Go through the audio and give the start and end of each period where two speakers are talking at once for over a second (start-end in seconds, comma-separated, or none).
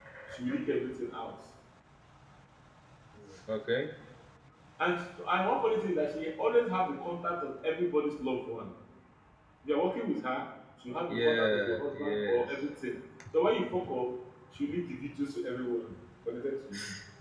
11.1-12.5